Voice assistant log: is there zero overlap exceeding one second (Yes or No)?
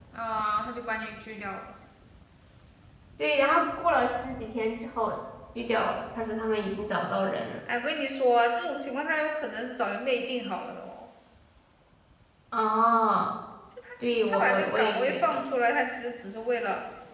No